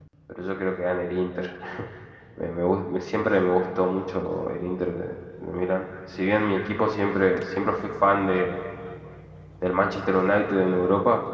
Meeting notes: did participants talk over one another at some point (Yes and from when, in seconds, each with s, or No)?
No